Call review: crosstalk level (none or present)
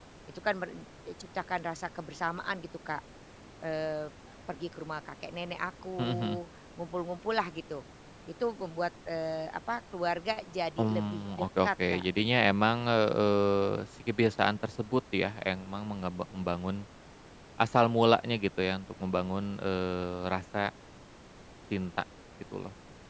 present